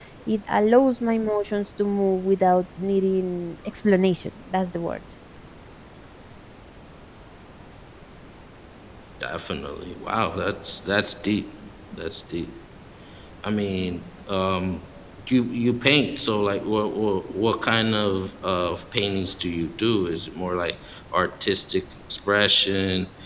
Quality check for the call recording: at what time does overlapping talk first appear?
none

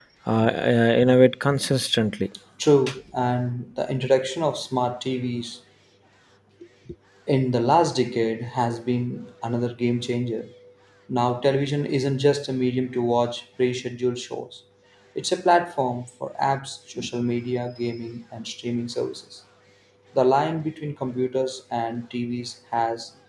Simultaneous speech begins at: none

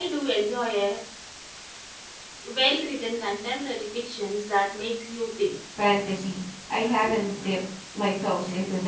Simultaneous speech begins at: none

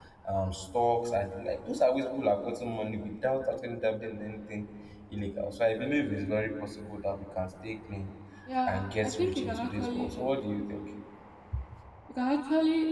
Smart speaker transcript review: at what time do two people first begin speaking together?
8.7 s

